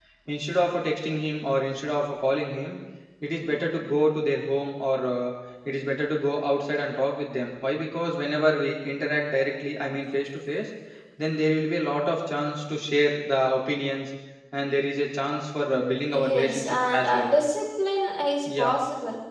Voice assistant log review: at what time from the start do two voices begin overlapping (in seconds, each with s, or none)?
15.7 s